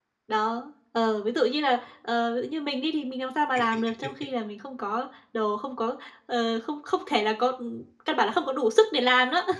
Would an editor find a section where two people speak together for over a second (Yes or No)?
No